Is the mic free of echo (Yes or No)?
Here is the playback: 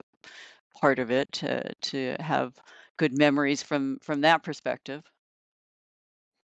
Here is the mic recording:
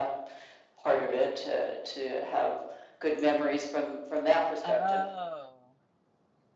No